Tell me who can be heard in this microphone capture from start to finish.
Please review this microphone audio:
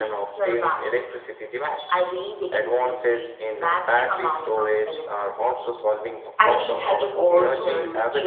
both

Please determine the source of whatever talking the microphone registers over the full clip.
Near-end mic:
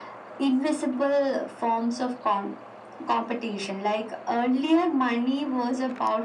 echo only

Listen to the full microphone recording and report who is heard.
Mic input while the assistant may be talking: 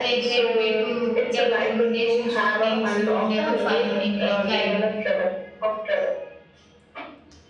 both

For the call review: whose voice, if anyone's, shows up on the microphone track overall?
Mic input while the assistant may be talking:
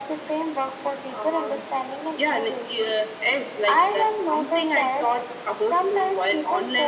echo only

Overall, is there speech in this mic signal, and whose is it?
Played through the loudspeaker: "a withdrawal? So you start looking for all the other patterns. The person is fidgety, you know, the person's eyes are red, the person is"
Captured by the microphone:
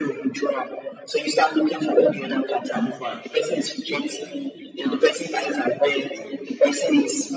both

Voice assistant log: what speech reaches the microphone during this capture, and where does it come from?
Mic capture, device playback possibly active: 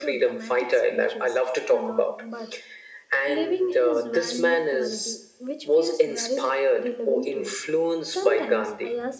both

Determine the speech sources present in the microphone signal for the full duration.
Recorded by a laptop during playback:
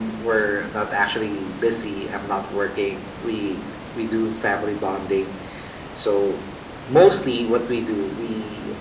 echo only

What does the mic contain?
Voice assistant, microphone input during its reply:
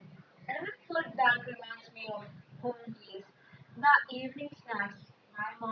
echo only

